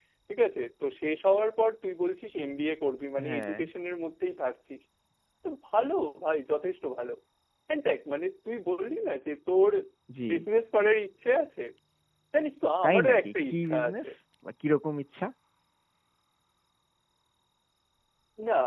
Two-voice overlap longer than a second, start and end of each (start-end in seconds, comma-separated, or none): 12.8-14.1